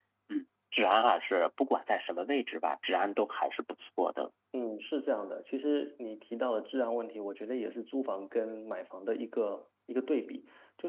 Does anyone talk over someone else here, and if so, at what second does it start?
none

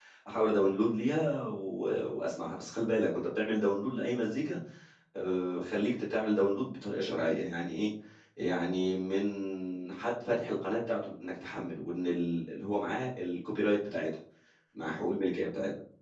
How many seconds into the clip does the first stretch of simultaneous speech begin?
none

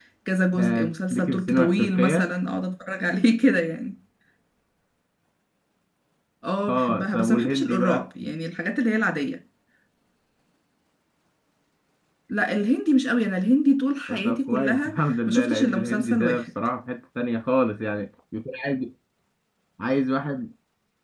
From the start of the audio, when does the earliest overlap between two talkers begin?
0.6 s

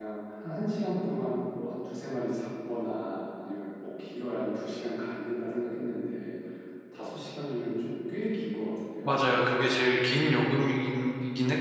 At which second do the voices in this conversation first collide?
none

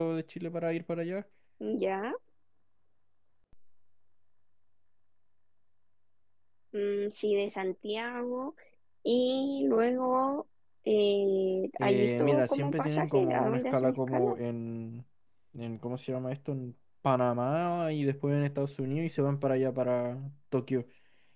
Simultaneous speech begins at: 11.8 s

